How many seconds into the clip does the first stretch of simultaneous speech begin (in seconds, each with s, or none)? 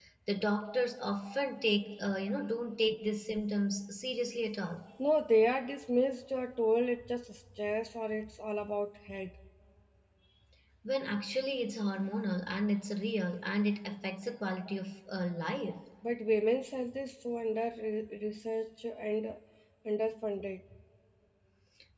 none